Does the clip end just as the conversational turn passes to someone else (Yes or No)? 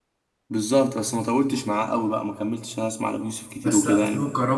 Yes